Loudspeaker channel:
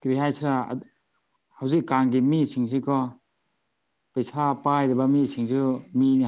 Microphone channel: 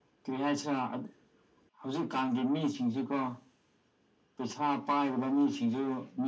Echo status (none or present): present